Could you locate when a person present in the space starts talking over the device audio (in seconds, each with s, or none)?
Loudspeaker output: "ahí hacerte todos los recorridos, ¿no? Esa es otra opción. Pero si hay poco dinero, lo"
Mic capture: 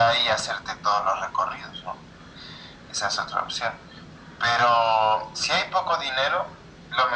none